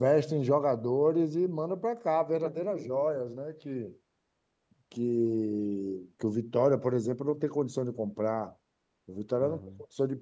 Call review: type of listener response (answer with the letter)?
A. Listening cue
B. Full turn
A